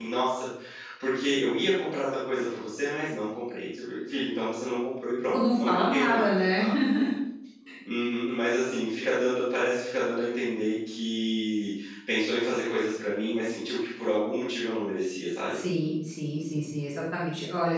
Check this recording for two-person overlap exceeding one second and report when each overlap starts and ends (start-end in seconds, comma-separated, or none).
5.3-6.6